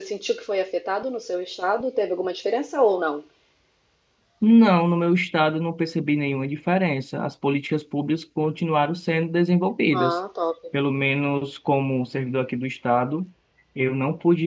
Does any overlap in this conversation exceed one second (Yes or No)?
No